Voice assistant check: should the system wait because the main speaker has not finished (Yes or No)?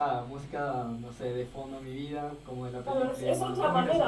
No